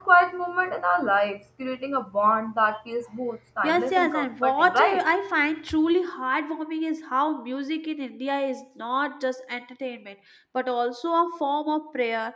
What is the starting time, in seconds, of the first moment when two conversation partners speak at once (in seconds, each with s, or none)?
3.6 s